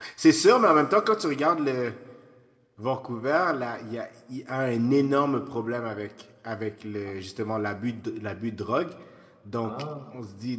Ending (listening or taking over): listening